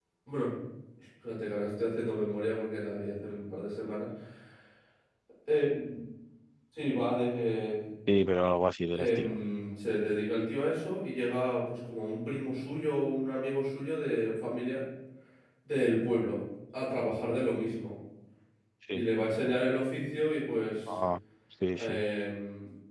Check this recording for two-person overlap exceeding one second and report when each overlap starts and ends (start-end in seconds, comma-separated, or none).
none